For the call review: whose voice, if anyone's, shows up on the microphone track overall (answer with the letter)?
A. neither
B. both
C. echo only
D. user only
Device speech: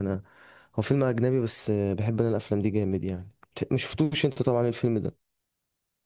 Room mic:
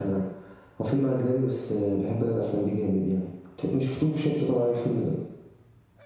C